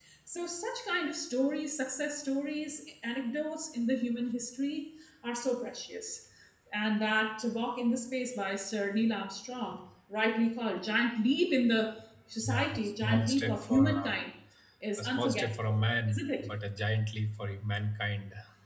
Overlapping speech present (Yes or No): Yes